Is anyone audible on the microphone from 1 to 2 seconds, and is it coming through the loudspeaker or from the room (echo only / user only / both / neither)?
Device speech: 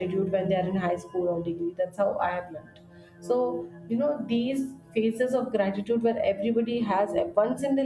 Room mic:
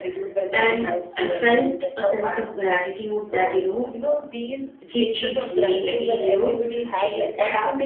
both